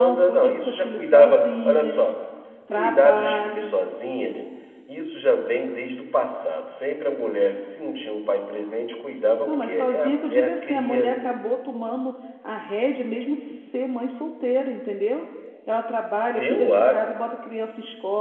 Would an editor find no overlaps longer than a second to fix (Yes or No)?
No